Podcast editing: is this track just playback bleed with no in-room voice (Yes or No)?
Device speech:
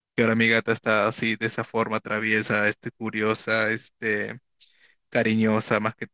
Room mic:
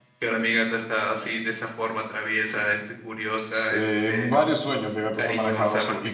No